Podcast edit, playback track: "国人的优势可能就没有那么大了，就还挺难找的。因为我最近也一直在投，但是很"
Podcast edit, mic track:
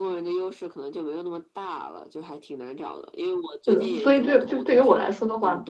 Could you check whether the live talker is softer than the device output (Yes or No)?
No